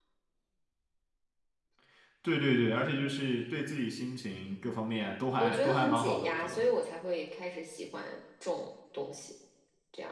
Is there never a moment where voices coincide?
No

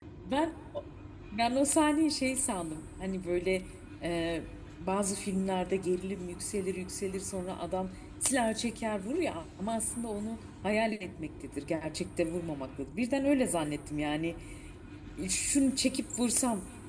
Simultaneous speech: No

